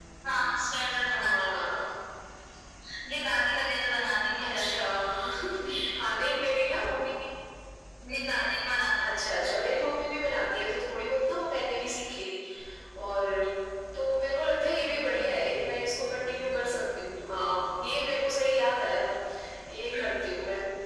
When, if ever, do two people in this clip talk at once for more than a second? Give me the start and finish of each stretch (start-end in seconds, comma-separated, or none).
none